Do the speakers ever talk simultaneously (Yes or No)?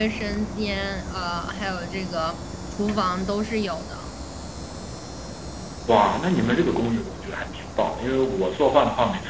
No